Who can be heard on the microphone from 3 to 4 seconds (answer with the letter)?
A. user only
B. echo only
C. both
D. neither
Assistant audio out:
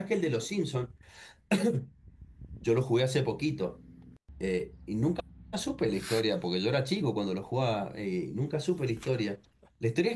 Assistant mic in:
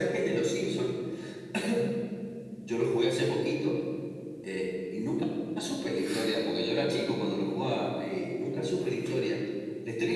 B